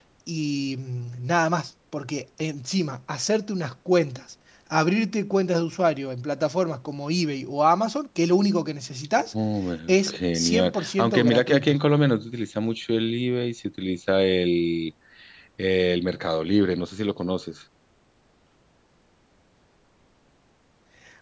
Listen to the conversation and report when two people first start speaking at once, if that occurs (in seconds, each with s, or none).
9.9 s